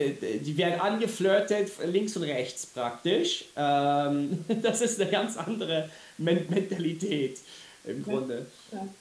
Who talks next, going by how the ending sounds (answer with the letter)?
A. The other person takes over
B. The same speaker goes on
A